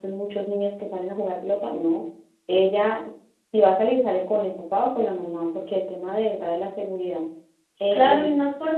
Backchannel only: No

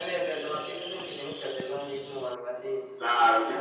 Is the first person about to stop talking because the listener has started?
Yes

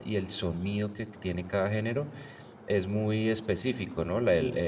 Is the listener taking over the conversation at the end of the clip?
No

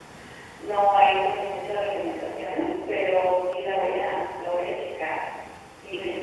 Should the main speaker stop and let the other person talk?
Yes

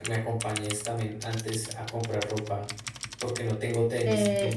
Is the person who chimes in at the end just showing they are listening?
No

